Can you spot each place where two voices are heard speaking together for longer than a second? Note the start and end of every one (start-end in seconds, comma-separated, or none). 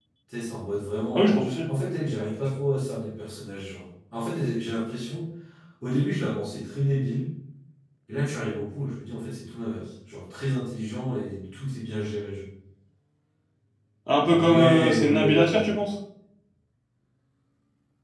14.2-15.7